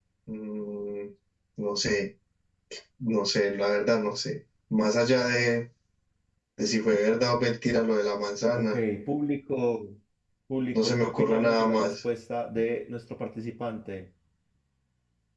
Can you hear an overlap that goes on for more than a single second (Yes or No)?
Yes